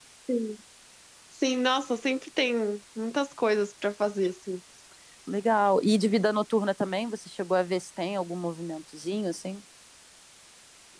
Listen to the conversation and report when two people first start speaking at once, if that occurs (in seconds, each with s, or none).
none